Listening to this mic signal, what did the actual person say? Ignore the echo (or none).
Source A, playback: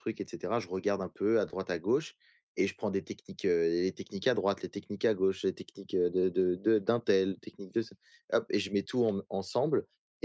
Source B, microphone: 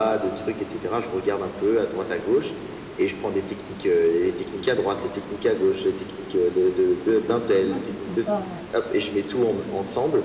Ouais, c'est sympa, ouais.